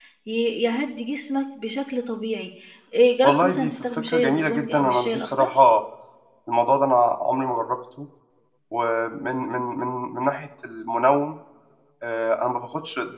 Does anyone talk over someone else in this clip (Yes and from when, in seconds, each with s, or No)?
Yes, from 3.2 s